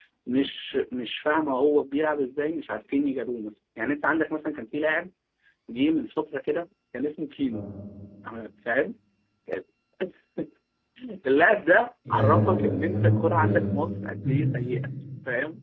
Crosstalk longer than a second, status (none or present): present